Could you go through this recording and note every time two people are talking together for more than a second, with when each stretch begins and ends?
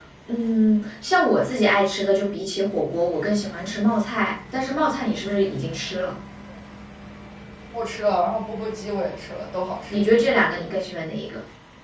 none

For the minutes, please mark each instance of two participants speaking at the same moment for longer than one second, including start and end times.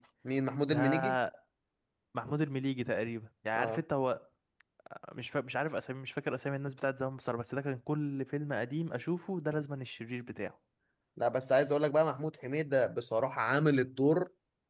none

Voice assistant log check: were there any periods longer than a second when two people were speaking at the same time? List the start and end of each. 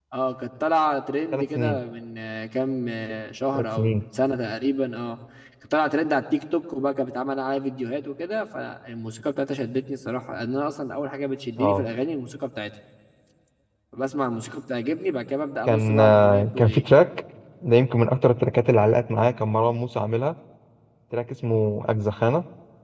15.7-16.9

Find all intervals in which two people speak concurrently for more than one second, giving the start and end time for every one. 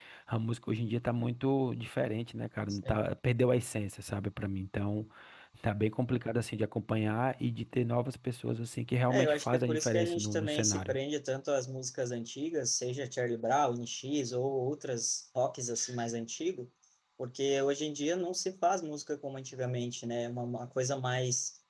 9.1-11.0

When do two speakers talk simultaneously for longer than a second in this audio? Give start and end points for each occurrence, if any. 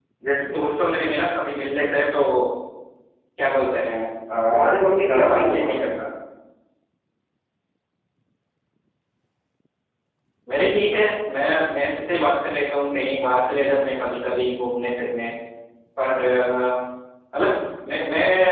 4.5-5.8

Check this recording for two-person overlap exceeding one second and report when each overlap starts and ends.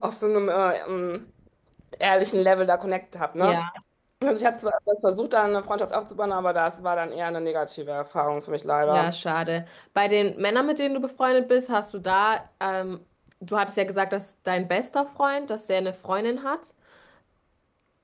none

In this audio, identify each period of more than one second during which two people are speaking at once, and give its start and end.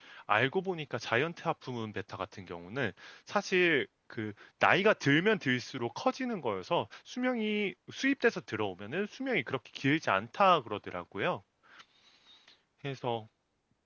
none

